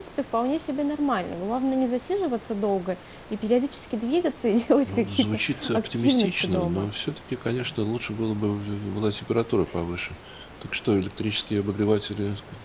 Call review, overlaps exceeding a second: present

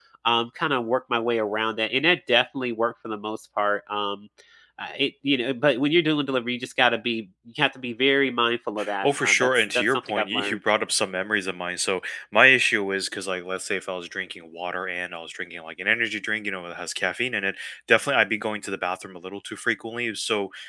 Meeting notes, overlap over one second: present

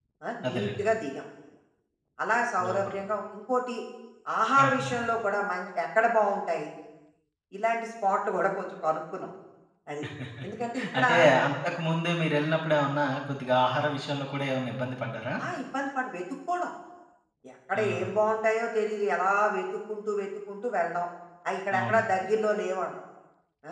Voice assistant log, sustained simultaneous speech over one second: none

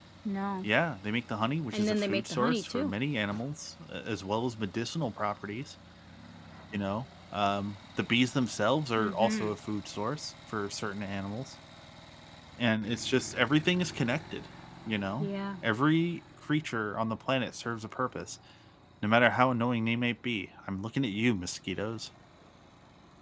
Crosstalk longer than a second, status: present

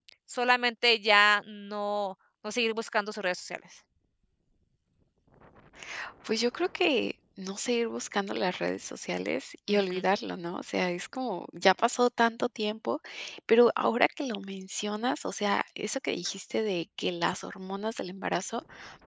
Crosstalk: none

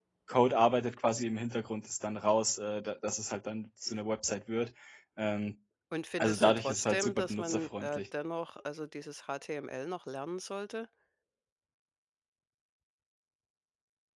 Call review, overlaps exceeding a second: present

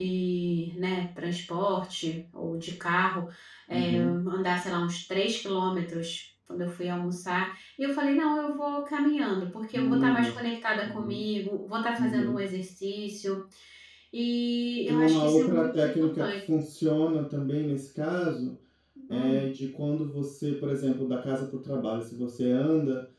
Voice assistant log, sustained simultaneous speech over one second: present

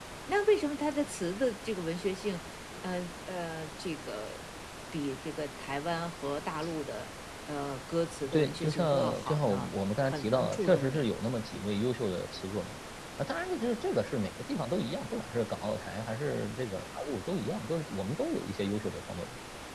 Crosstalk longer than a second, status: present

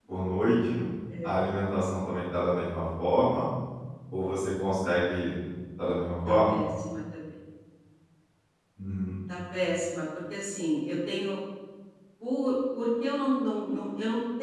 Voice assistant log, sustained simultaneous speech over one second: none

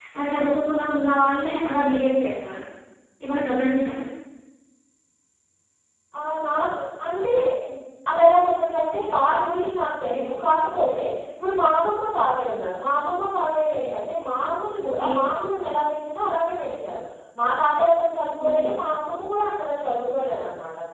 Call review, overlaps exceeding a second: none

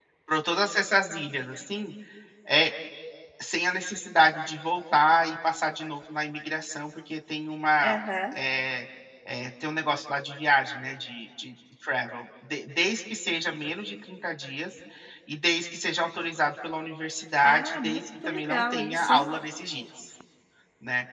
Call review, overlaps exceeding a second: present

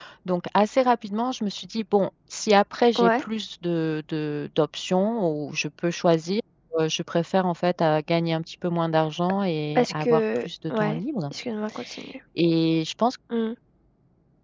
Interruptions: present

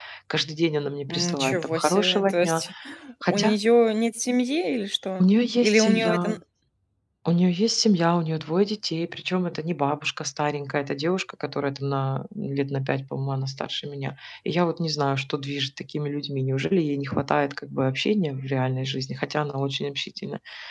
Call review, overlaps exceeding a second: present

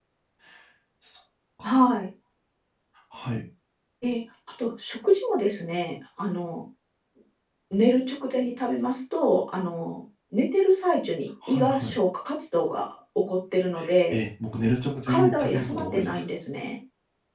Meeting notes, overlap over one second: present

